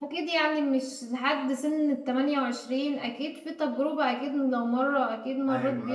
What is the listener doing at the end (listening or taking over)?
taking over